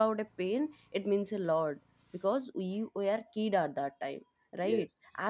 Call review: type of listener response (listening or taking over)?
listening